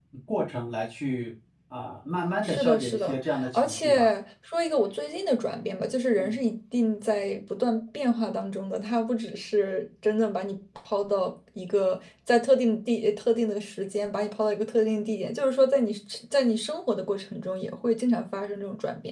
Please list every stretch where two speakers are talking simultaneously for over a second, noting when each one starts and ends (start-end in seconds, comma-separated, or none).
2.4-4.1